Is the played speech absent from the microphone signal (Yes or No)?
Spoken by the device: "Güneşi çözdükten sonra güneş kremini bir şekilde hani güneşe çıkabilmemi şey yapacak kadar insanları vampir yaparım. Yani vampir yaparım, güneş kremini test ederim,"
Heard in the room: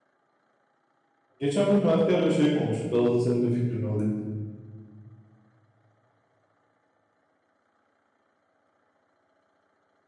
Yes